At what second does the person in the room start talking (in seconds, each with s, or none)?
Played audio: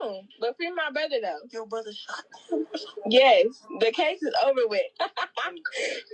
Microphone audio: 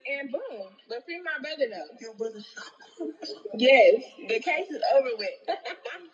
none